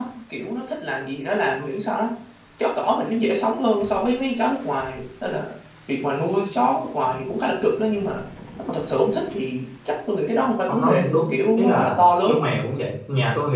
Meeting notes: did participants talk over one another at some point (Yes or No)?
Yes